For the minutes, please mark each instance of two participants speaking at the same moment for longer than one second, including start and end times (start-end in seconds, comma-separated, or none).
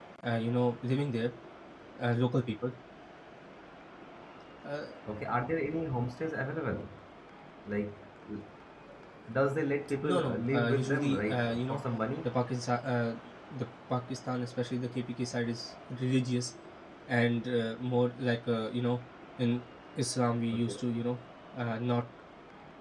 10.0-11.8